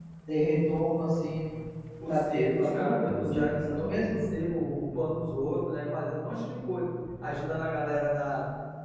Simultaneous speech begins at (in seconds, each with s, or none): 2.1 s